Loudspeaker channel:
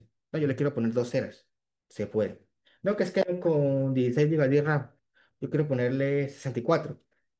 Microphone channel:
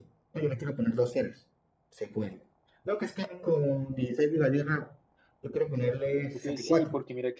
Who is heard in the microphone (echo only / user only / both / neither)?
both